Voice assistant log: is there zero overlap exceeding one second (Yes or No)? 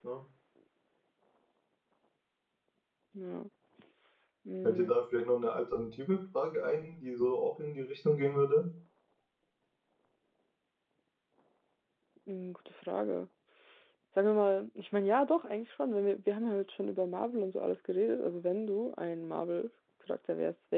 Yes